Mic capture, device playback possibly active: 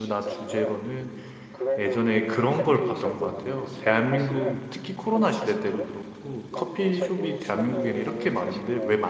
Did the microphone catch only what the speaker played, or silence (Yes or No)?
No